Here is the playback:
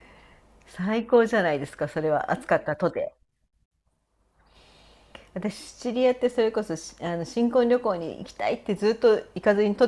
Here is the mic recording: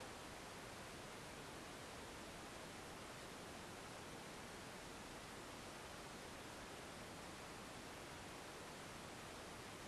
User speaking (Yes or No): No